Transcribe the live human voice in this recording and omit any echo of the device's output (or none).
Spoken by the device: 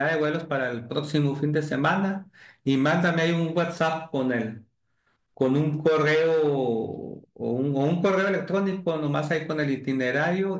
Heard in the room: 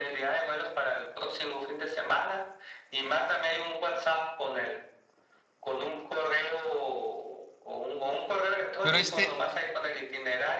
Pero este,